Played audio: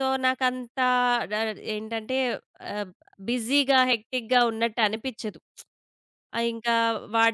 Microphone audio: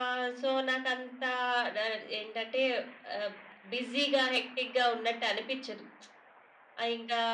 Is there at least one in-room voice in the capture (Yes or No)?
No